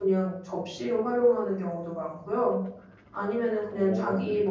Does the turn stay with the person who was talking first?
Yes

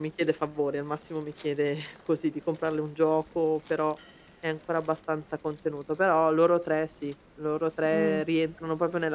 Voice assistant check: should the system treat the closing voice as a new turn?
No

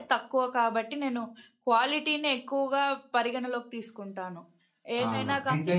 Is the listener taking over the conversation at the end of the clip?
Yes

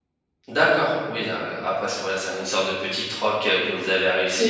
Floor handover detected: Yes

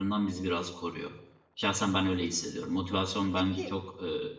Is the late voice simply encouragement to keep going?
Yes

